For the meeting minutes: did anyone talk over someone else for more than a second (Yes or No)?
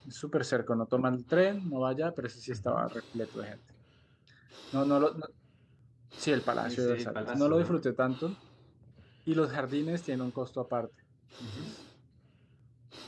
Yes